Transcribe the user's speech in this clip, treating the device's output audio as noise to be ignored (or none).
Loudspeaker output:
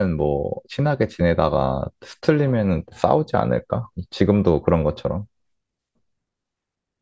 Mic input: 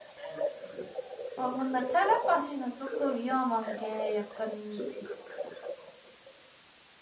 아, 근데 텔레파시는 조금 위험한 게 약간